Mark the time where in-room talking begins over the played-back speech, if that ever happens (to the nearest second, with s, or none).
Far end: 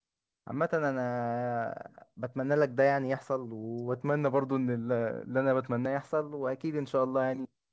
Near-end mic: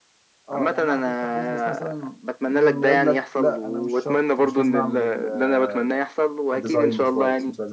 0 s